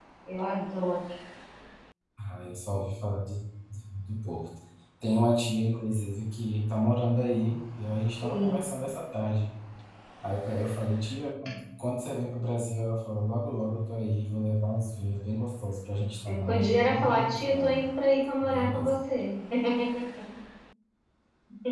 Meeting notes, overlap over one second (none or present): present